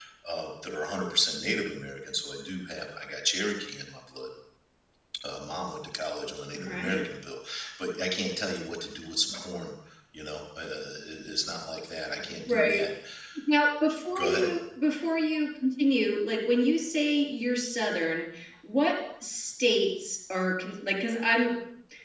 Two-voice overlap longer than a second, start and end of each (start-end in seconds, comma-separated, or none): none